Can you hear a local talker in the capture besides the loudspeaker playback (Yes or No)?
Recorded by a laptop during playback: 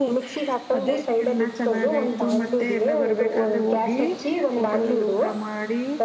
Yes